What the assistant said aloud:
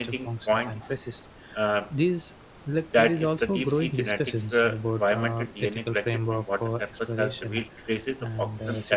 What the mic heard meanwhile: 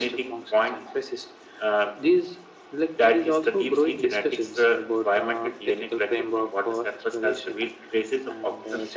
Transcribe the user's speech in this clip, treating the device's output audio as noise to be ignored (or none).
none